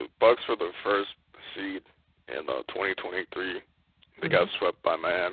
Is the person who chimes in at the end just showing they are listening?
Yes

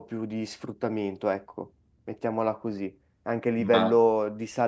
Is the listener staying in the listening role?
Yes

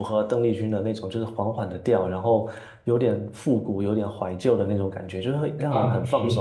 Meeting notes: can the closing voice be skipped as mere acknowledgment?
No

